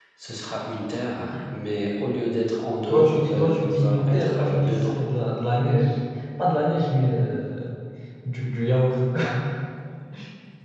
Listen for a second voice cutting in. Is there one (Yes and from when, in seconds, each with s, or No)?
Yes, from 2.9 s